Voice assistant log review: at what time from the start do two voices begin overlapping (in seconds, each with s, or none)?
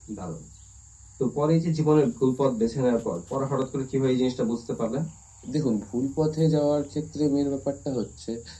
none